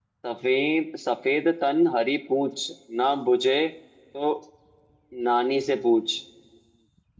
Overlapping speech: No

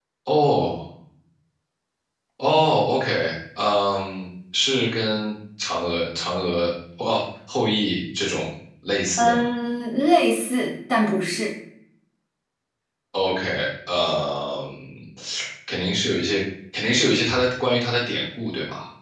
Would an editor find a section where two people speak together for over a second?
No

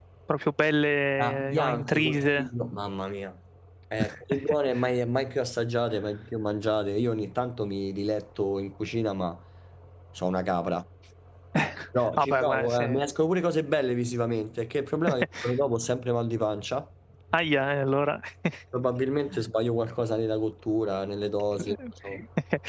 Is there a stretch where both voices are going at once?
Yes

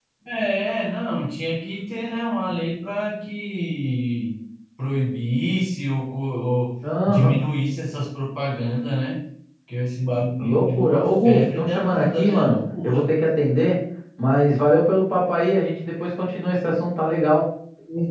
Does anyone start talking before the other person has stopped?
Yes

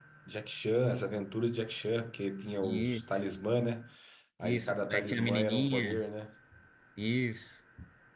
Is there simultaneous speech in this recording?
Yes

